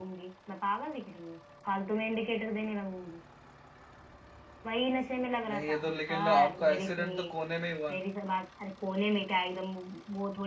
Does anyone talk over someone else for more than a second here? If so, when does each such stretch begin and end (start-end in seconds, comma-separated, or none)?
5.5-7.4